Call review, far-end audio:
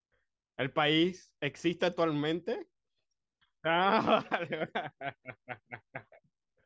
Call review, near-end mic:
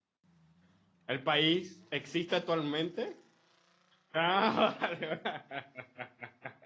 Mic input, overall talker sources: echo only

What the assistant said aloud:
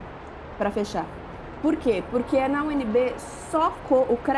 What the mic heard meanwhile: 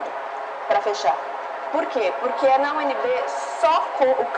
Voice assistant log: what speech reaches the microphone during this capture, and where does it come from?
echo only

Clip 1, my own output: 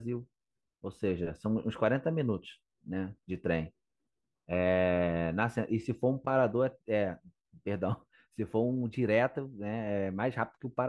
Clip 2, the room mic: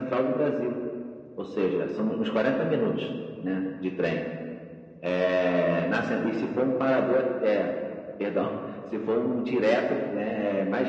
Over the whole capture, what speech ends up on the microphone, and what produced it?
echo only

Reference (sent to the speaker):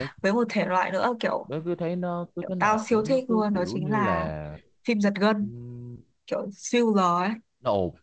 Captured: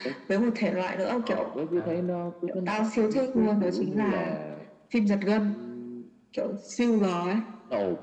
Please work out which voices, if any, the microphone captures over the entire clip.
both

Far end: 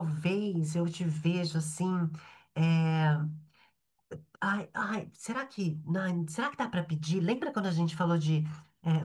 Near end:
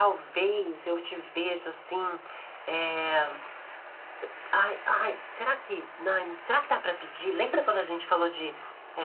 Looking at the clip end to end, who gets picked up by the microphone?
echo only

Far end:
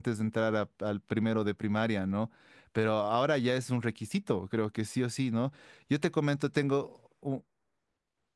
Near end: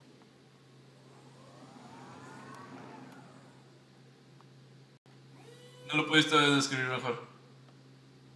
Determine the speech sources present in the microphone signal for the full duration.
user only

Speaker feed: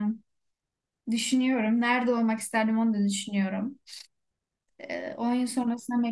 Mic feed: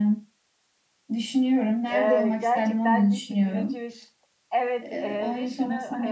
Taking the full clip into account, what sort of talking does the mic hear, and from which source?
both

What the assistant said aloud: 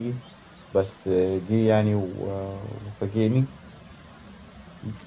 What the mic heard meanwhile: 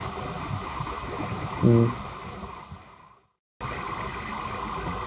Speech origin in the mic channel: user only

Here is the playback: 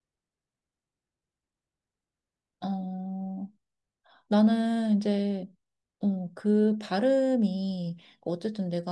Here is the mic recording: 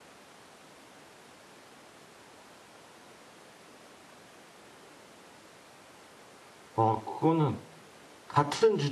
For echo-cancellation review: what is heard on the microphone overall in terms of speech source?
user only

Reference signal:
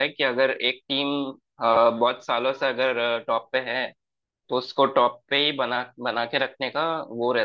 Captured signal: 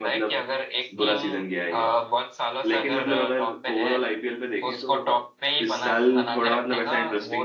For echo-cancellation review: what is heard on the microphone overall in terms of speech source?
both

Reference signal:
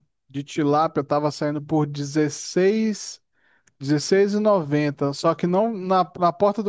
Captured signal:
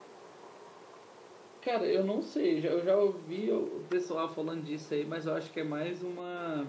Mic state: user only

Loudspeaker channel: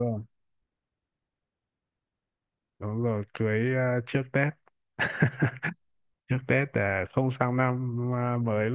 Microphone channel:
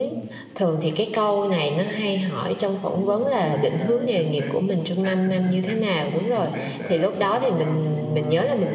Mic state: both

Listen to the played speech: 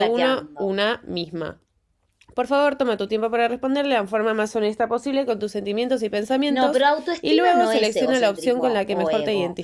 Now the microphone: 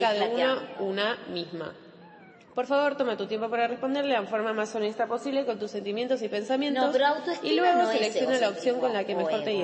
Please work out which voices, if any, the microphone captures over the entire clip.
echo only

